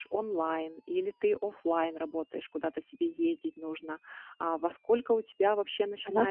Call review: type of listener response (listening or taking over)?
listening